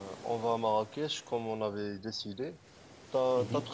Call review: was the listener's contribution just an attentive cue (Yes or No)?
Yes